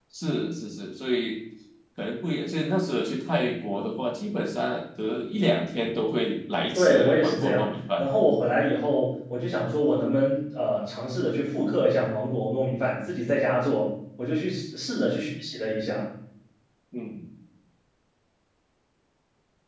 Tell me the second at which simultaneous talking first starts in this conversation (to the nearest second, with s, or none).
7 s